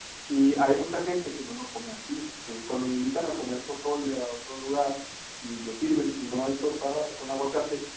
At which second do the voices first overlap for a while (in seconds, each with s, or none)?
none